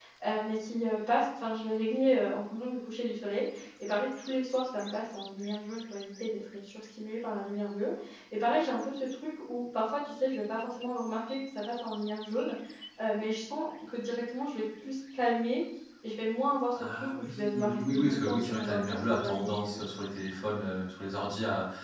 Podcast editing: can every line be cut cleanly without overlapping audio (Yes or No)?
No